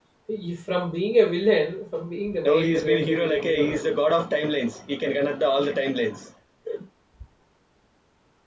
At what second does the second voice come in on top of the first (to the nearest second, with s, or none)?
2 s